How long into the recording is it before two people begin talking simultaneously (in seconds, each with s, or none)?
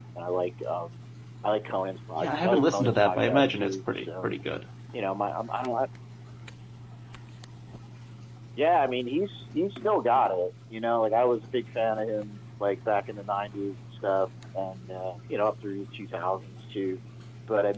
2.2 s